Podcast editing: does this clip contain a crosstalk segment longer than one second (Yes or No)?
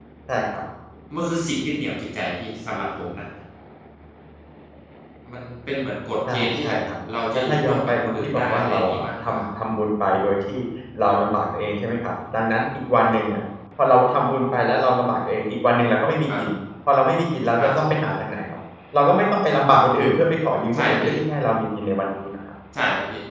Yes